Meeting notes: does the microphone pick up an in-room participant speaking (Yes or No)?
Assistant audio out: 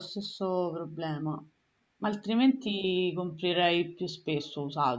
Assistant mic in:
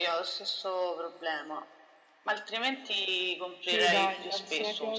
Yes